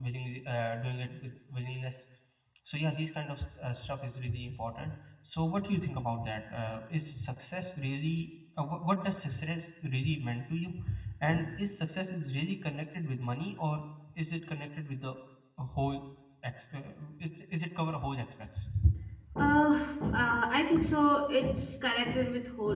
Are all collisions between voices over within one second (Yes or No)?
Yes